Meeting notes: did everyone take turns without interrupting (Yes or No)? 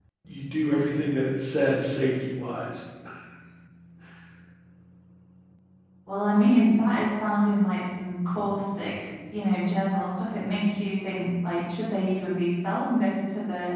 Yes